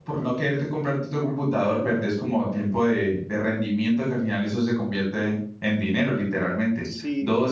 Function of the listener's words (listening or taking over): listening